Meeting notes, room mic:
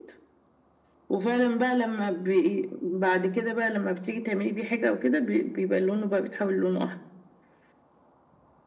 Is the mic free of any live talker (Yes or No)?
Yes